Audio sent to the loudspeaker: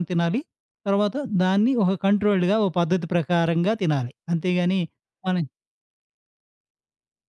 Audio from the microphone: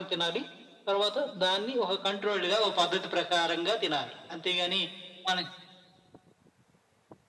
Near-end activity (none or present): none